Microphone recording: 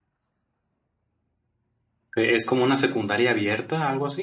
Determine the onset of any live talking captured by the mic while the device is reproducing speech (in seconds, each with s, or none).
2.2 s